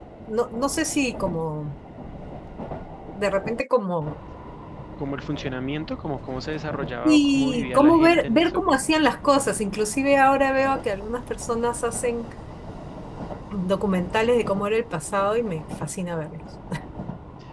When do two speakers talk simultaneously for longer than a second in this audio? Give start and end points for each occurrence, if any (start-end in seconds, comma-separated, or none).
7.0-8.6